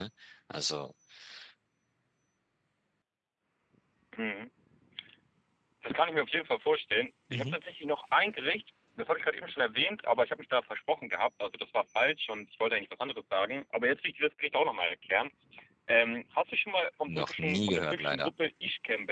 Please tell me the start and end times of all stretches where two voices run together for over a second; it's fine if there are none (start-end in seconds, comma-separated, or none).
17.1-18.3